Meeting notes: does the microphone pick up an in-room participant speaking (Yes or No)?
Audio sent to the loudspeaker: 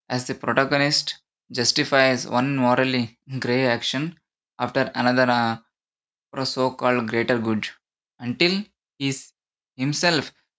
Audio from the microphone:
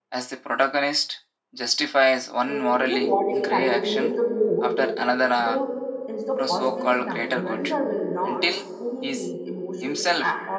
Yes